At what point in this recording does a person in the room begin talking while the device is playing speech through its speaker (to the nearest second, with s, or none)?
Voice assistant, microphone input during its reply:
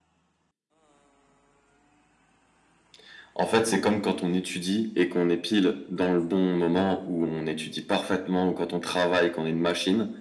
none